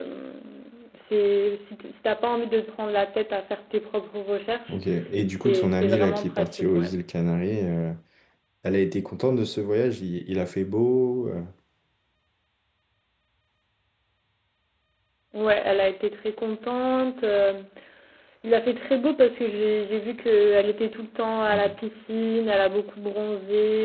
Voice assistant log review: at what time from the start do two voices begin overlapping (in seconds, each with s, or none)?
5.3 s